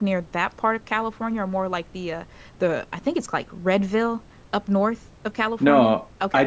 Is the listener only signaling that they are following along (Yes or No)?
No